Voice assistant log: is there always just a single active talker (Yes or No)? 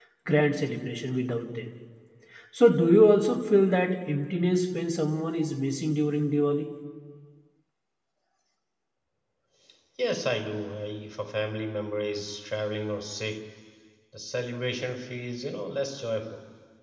Yes